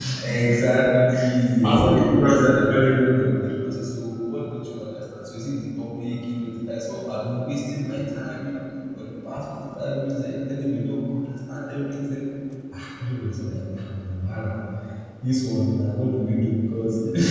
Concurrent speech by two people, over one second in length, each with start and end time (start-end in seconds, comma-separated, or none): 1.6-3.3